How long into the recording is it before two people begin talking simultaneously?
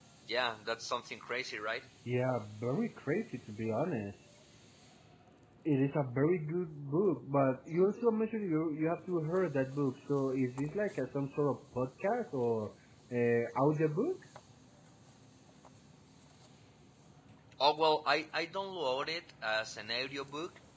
none

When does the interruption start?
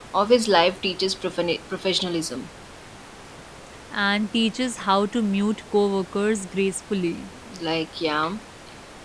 none

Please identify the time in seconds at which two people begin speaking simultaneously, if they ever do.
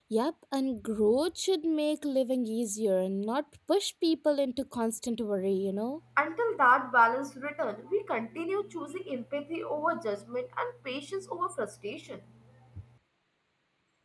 none

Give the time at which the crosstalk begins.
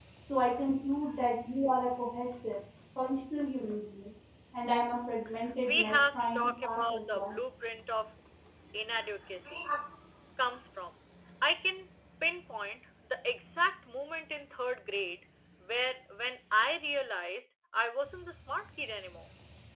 5.6 s

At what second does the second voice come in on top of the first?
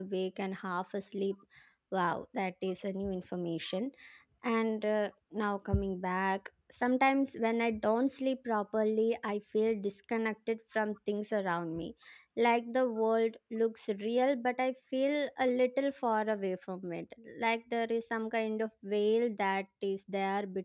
none

